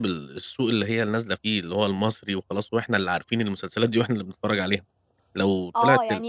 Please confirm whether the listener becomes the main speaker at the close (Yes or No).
Yes